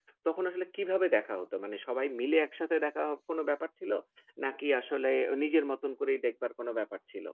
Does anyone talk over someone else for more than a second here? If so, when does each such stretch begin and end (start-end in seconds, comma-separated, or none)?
none